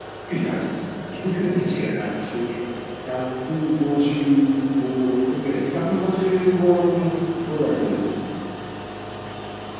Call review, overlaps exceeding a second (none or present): none